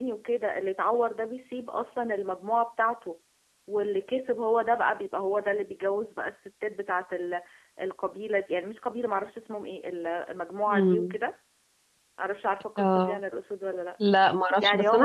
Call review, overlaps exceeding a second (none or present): none